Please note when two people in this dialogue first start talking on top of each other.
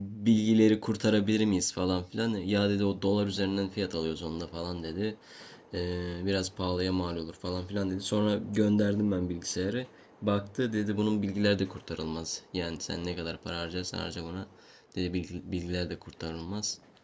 none

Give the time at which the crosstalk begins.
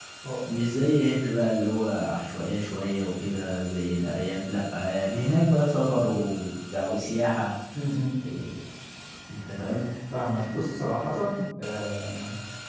none

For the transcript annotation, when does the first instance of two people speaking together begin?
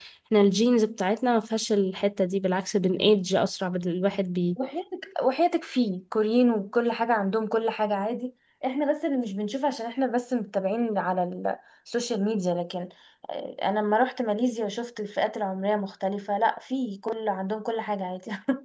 none

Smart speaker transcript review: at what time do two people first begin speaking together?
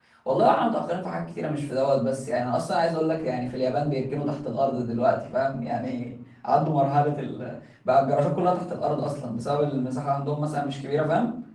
none

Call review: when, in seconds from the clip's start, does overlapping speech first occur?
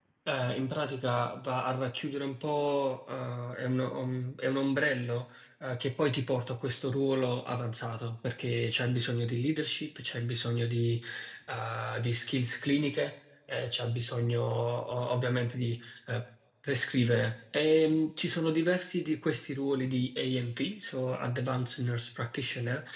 none

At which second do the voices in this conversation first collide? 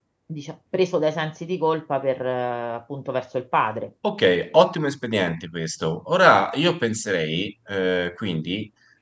none

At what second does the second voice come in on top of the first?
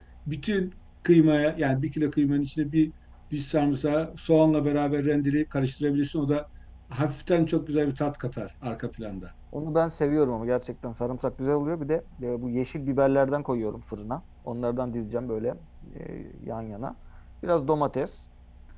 none

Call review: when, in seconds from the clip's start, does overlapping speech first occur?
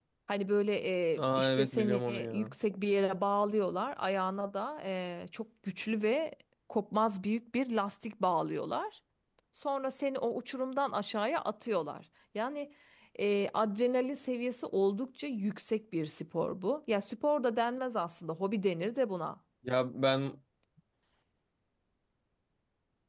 1.2 s

